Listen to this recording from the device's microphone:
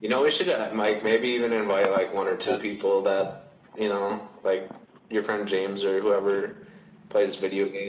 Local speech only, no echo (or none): Does